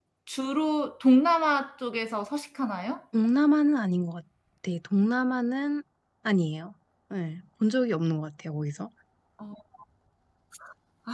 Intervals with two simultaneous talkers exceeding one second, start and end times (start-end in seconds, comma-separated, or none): none